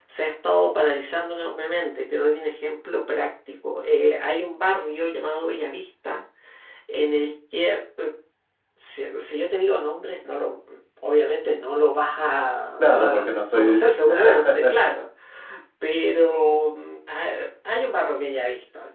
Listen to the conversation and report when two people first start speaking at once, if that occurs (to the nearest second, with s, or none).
13 s